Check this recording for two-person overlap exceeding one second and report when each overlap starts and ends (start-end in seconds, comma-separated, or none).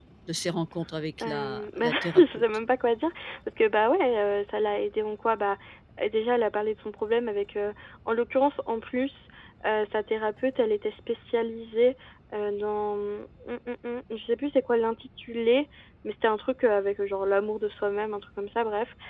1.2-2.4